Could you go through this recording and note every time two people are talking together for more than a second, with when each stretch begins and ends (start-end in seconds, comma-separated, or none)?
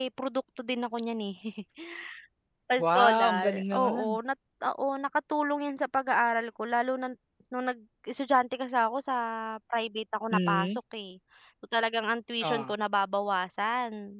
3.0-4.2